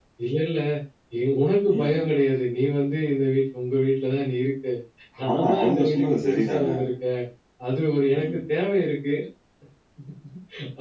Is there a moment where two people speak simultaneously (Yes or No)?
Yes